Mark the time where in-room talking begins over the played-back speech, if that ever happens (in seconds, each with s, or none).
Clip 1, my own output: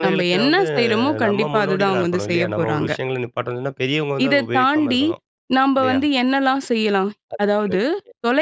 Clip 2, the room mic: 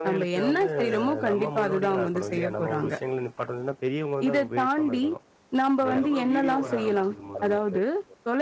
5.9 s